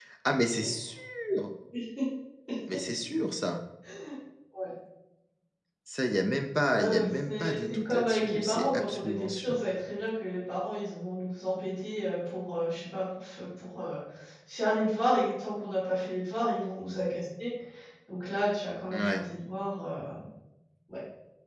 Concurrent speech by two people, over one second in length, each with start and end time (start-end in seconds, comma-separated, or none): 6.7-9.6